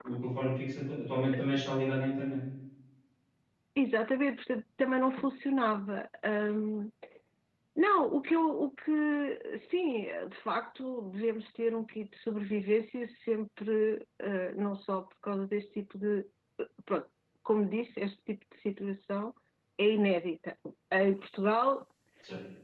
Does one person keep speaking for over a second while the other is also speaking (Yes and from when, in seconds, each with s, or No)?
No